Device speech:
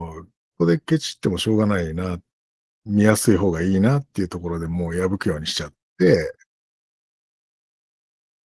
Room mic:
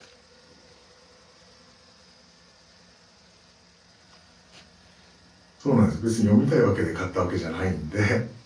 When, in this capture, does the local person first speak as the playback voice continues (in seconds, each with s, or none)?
5.6 s